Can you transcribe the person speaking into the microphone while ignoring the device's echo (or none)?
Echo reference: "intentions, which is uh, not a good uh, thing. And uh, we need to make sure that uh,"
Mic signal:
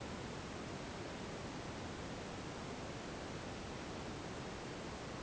none